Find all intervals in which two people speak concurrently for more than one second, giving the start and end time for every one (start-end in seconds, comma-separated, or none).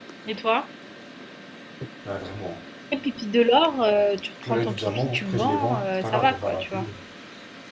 4.4-6.8